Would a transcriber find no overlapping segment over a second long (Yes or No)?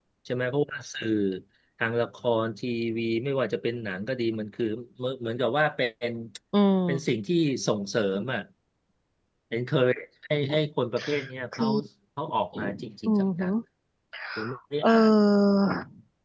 Yes